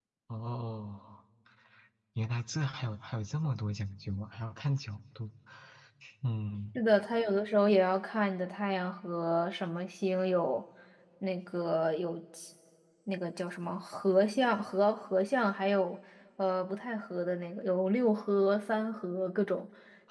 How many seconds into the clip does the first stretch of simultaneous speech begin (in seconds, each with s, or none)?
none